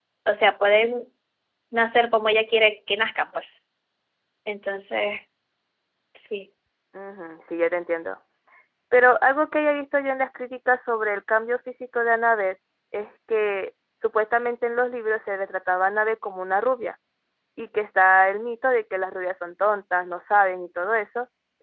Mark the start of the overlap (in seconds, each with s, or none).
none